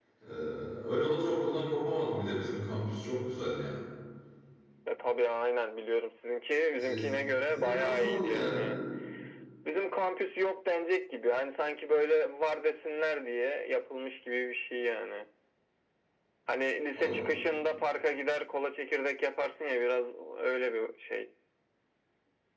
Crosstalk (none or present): present